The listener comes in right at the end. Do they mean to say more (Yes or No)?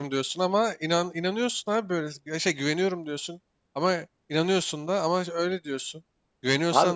No